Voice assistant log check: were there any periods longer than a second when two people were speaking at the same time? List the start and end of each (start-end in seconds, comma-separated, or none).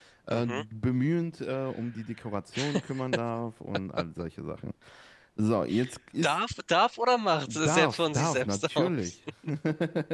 7.5-8.9